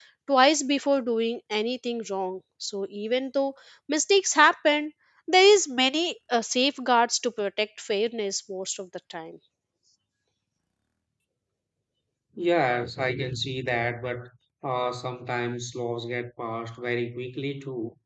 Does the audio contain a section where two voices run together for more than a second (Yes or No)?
No